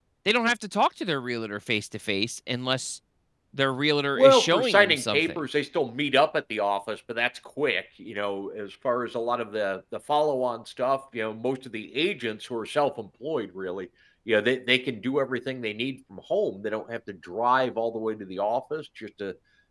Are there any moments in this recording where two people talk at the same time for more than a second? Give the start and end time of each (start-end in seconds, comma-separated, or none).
4.2-5.4